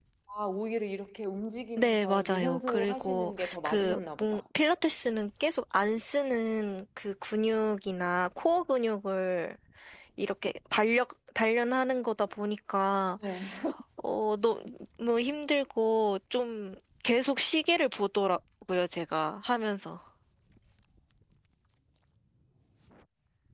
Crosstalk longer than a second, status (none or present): present